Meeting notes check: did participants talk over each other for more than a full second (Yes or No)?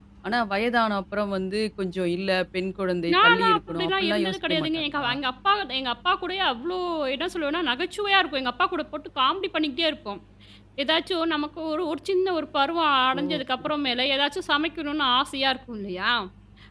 Yes